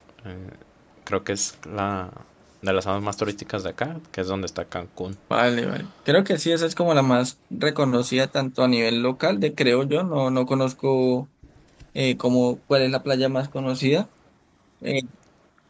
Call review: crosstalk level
none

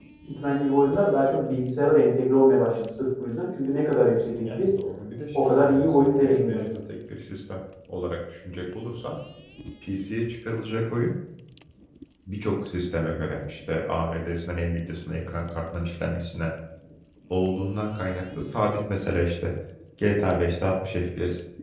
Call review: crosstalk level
present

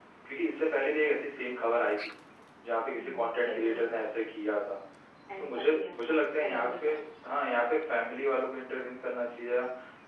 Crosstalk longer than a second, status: present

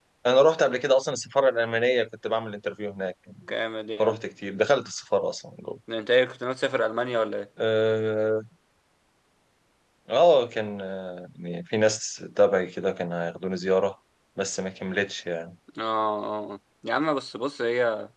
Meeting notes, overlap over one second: none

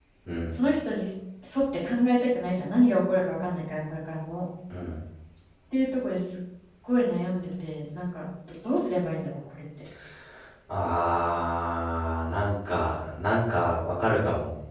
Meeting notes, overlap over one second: none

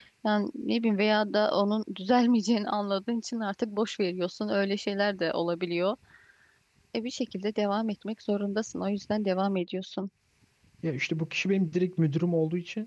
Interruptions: none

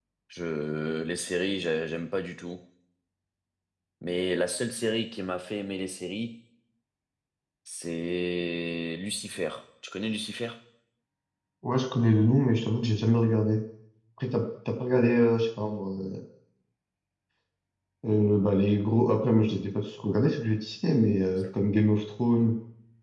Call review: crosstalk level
none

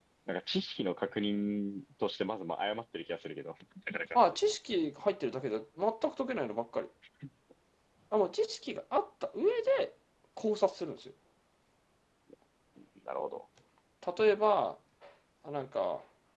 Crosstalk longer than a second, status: none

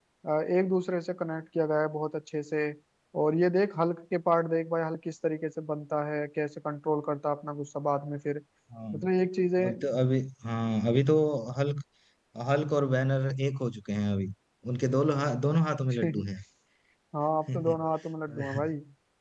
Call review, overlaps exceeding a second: none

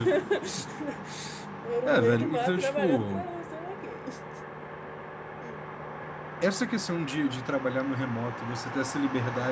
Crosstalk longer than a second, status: present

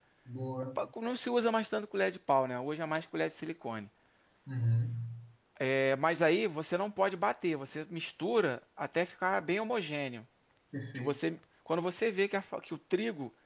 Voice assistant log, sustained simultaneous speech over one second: none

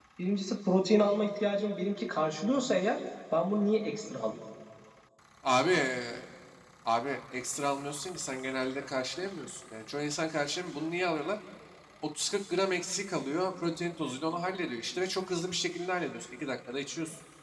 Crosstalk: none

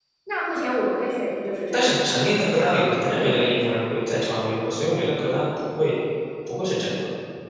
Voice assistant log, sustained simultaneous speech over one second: present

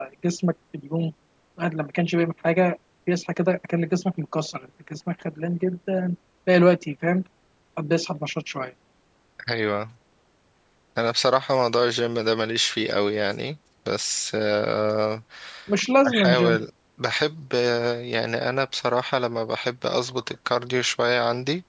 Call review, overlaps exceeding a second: none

